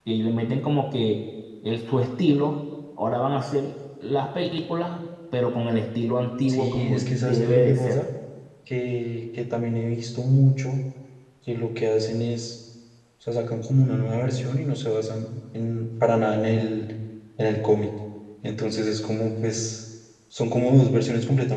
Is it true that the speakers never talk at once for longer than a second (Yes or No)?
No